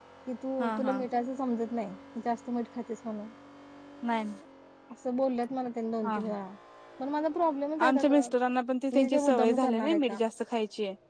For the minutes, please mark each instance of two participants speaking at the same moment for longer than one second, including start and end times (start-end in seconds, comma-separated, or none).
9.0-10.2